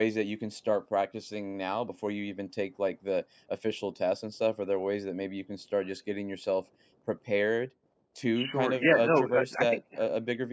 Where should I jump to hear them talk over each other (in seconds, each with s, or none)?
8.3 s